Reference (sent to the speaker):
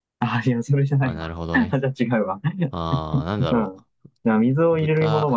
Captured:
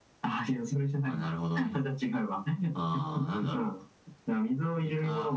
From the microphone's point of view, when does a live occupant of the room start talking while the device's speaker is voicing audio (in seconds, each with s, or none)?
none